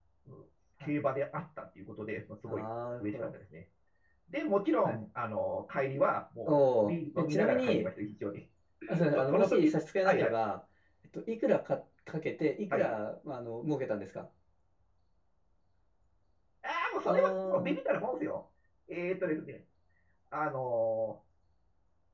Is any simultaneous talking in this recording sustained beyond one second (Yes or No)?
Yes